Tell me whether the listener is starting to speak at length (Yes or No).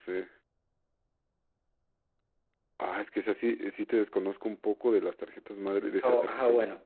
Yes